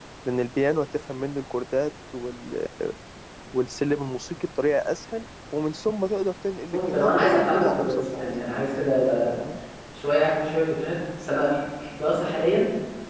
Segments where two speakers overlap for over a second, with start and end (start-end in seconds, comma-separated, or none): 6.7-8.4